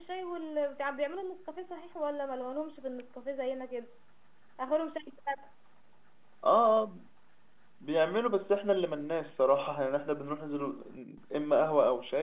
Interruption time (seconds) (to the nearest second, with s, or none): none